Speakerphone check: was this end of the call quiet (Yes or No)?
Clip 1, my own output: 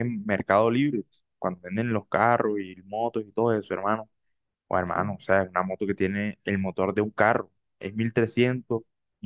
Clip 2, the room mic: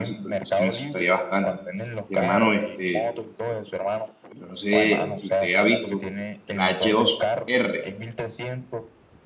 No